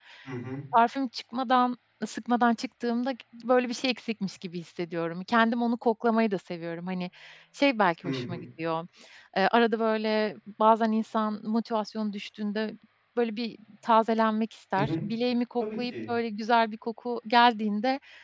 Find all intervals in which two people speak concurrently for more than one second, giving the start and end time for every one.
none

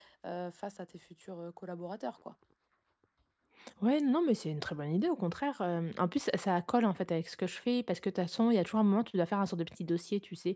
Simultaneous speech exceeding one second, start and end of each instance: none

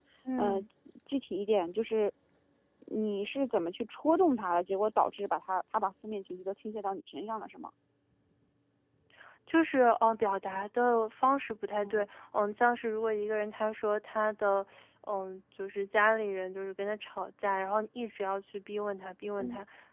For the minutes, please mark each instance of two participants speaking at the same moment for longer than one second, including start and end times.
none

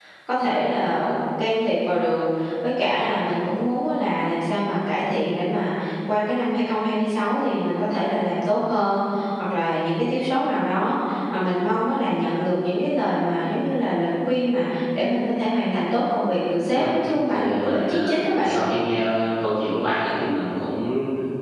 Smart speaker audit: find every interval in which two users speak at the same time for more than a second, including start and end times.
17.3-18.6

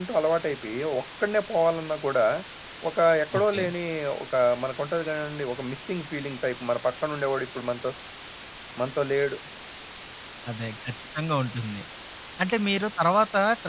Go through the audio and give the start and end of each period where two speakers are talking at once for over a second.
none

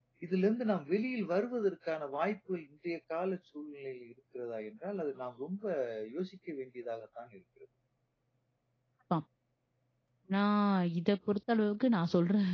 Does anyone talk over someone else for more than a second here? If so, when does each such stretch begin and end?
none

